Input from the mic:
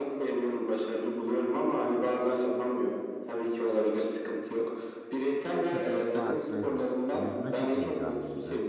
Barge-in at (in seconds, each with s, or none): 5.7 s